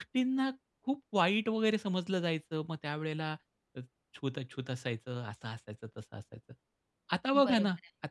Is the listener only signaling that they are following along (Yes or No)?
Yes